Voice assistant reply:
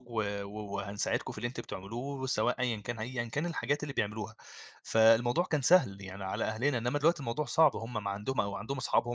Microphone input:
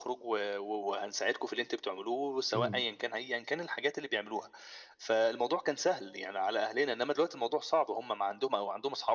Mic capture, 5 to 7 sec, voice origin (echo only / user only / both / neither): echo only